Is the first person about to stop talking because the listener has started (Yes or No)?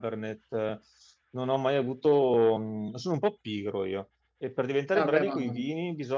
No